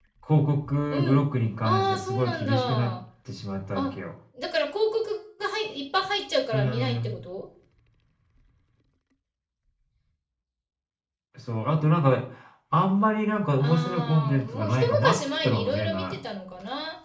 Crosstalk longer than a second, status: present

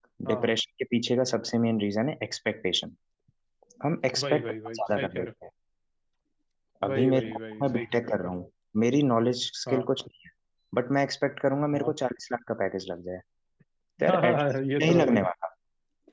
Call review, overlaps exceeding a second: present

